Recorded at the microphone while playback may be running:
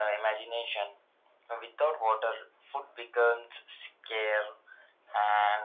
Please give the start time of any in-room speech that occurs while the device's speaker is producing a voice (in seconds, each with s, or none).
none